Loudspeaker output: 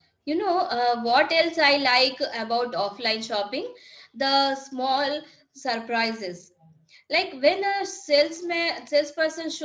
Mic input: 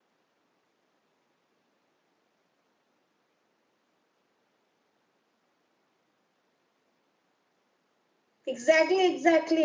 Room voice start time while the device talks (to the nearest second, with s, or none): 8 s